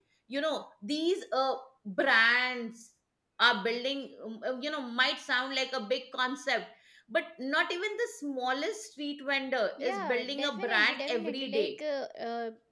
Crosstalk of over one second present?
Yes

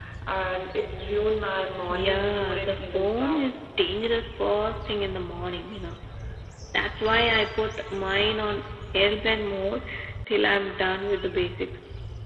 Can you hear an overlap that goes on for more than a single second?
Yes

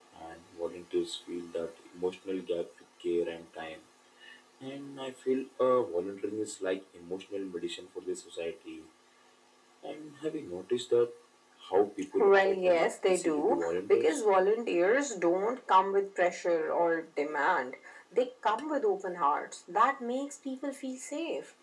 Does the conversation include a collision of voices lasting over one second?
Yes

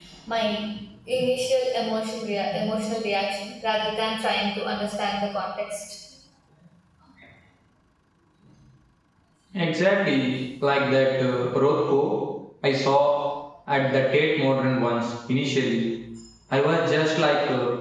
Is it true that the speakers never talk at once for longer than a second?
Yes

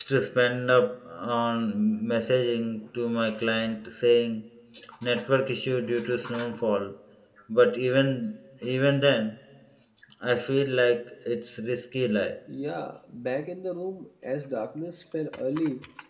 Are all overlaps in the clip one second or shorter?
Yes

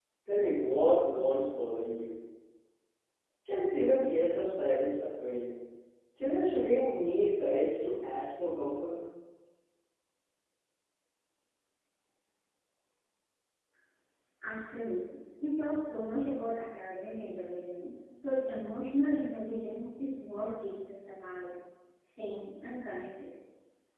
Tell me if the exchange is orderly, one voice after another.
Yes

